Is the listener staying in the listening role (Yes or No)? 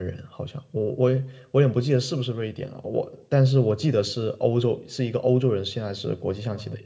No